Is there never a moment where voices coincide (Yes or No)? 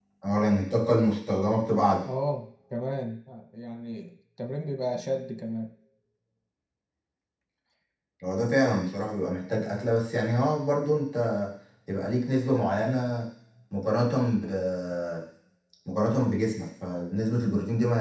Yes